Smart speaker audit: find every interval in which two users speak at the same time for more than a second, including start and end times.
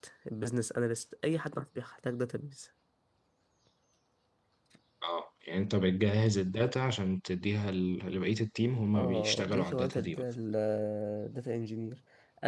8.9-10.2

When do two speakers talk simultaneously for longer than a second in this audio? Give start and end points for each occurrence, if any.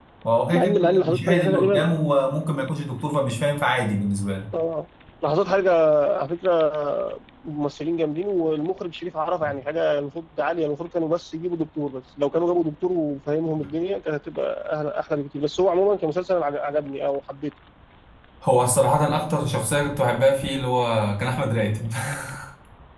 0.5-1.8

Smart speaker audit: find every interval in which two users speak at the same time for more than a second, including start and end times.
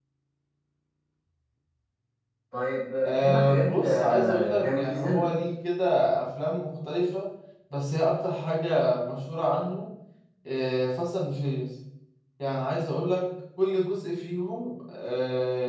3.0-5.3

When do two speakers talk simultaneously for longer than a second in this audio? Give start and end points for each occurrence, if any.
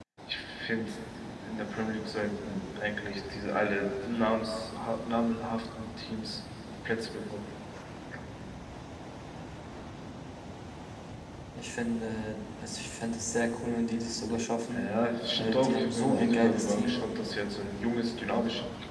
15.4-17.0

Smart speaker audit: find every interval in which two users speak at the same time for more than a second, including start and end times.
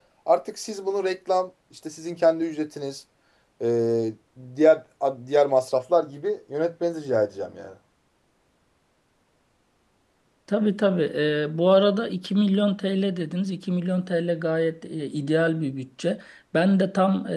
none

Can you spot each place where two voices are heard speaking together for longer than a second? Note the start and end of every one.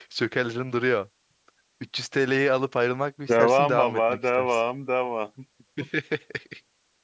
3.3-4.6

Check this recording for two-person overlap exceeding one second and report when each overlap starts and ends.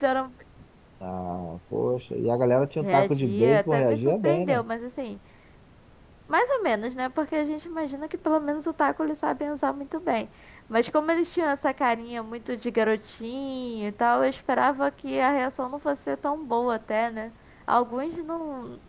2.8-4.6

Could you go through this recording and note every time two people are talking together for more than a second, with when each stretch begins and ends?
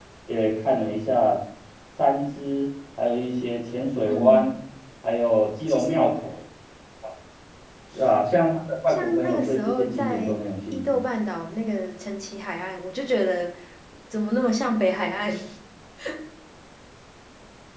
8.9-10.3

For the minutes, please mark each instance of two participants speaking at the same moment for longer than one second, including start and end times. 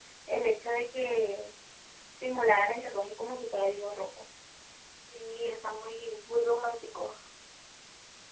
none

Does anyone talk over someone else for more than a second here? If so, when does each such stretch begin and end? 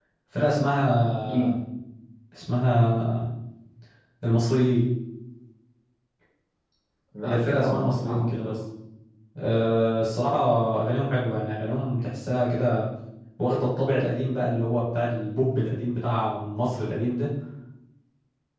7.2-8.6

